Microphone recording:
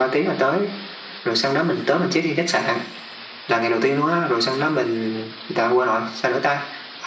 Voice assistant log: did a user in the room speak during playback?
No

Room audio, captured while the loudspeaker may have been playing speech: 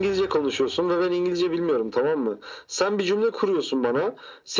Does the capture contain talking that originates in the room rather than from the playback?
No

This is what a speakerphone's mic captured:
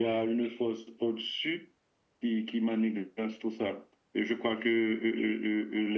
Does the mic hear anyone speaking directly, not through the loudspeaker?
No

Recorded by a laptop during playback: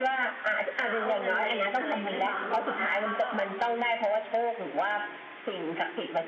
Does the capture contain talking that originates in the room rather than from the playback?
Yes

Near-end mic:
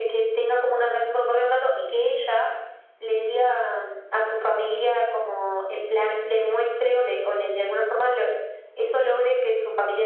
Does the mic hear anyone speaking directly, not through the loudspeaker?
No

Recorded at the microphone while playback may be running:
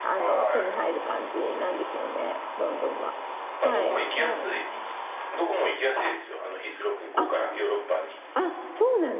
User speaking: Yes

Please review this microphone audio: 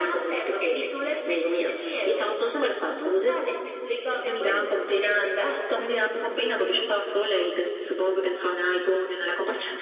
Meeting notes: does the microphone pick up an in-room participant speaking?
No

